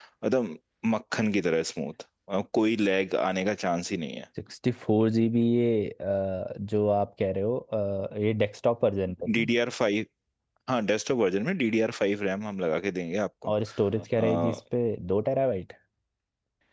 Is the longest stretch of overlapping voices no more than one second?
Yes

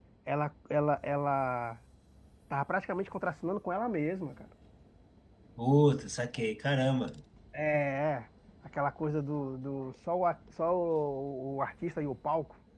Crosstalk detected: No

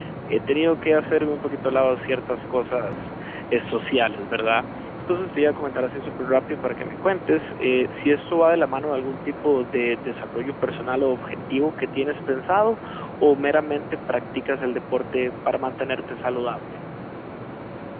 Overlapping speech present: No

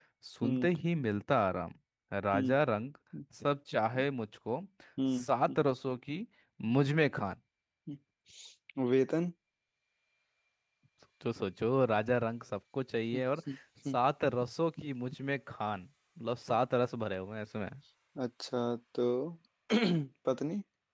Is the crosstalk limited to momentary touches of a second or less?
Yes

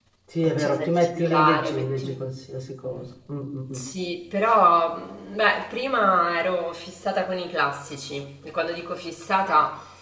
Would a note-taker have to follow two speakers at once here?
Yes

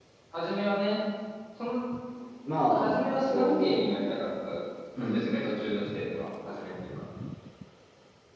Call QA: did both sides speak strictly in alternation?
No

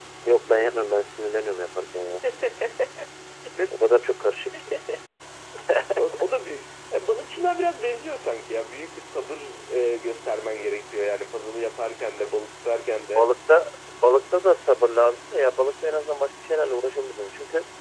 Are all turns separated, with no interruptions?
Yes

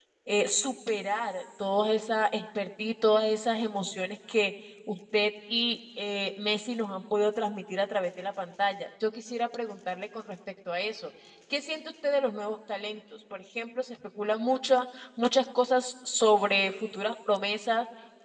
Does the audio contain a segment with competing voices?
No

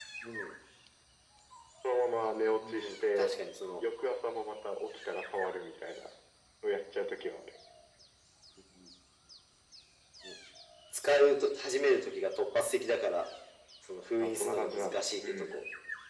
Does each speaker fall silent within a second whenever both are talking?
No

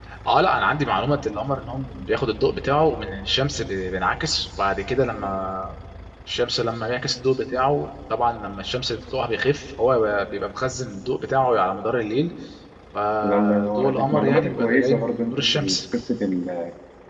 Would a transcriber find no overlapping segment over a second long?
No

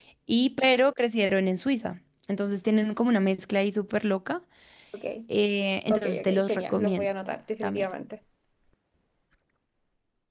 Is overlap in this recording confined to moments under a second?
No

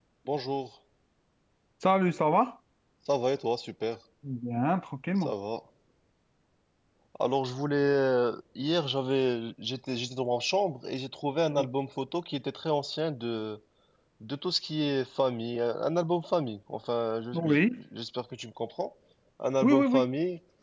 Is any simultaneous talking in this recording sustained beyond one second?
No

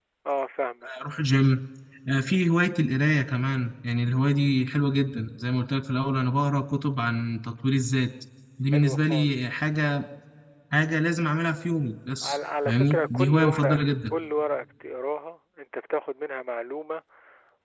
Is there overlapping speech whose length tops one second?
Yes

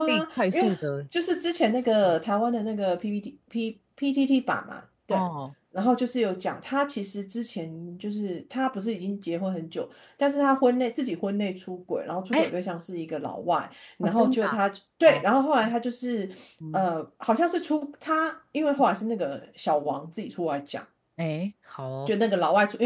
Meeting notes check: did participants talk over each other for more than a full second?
No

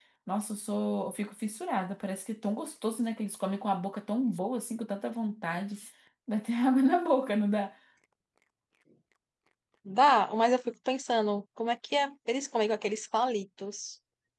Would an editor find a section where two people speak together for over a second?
No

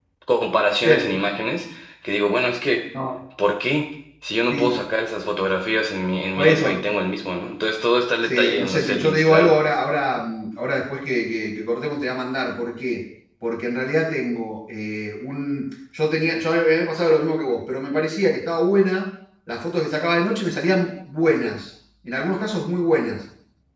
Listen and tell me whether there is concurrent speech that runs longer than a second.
Yes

